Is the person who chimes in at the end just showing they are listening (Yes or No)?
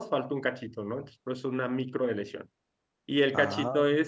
Yes